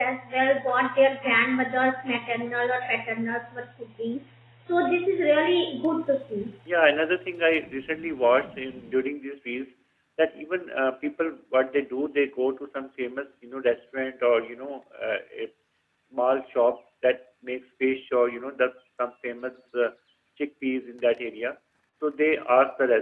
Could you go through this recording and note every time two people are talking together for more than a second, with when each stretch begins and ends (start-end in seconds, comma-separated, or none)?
none